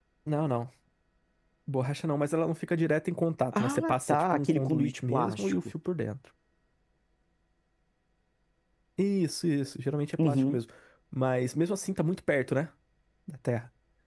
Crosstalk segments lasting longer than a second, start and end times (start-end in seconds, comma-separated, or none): 3.5-5.5